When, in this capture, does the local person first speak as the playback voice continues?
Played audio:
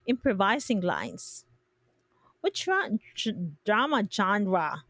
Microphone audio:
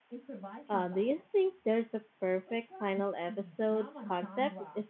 1 s

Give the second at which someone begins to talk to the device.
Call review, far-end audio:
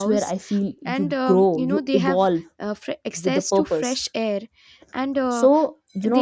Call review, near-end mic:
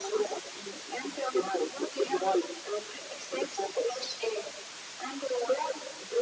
none

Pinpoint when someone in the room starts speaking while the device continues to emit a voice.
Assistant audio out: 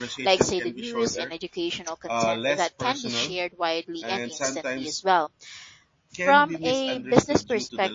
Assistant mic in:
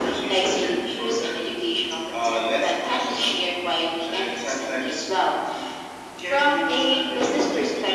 none

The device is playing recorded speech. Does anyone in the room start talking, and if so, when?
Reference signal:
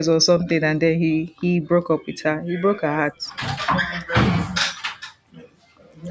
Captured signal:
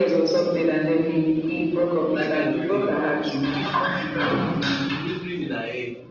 2 s

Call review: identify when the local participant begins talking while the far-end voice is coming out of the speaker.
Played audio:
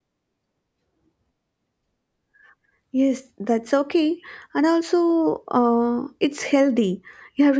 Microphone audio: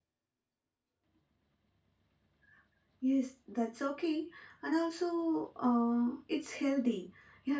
none

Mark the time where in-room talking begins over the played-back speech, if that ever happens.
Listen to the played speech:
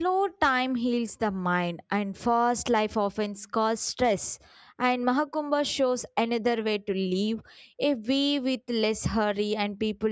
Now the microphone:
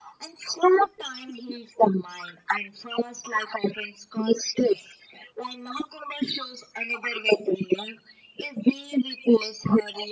none

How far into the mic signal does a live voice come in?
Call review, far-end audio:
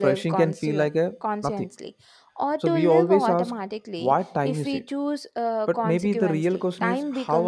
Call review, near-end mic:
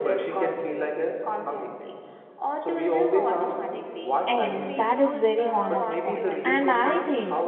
4 s

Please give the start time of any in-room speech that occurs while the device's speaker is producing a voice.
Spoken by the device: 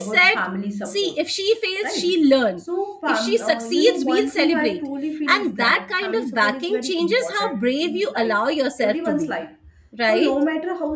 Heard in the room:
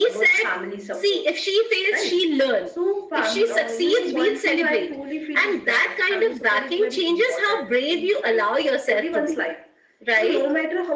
none

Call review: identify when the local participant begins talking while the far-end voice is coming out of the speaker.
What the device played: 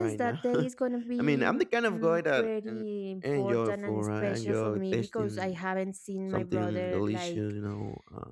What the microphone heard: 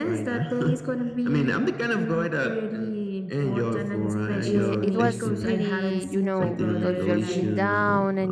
4 s

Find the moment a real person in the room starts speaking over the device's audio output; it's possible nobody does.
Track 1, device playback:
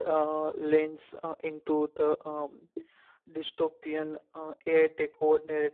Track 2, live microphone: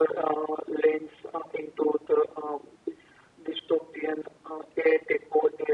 none

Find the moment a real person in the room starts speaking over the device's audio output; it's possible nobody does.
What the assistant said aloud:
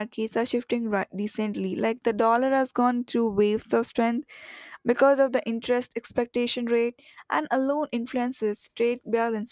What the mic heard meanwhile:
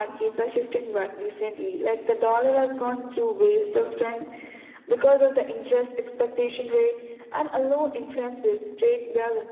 none

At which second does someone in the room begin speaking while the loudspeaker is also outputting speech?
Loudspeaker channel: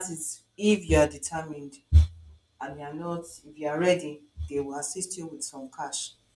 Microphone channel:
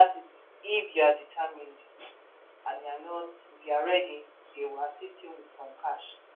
none

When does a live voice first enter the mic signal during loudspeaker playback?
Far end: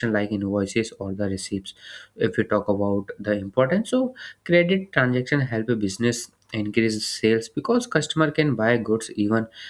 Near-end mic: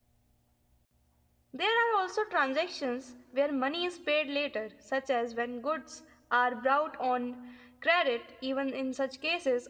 2 s

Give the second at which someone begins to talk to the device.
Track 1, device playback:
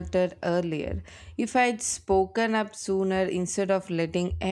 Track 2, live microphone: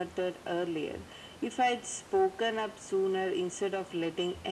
none

